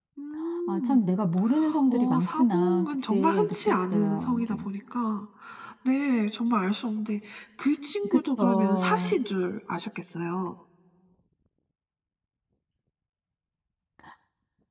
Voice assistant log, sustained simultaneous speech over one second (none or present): present